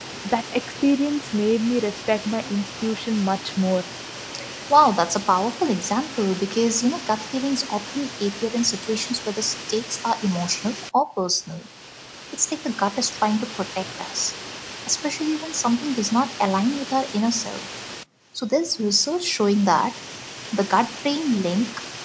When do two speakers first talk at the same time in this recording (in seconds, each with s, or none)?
none